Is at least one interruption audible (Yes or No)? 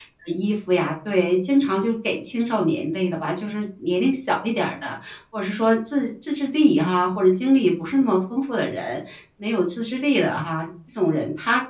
No